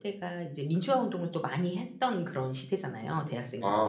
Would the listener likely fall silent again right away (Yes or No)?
No